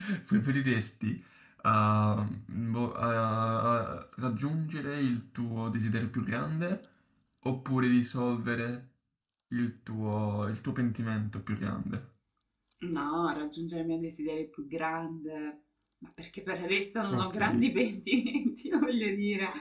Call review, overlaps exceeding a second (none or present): none